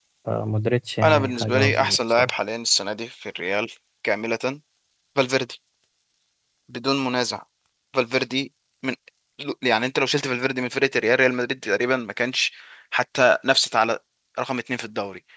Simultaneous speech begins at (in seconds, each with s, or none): 1.0 s